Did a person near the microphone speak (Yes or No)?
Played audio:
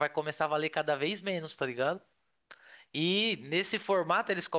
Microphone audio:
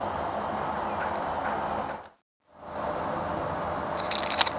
No